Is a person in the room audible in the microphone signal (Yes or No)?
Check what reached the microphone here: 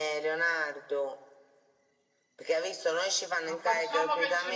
Yes